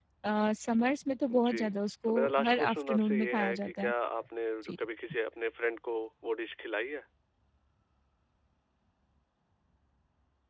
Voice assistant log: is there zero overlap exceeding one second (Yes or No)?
No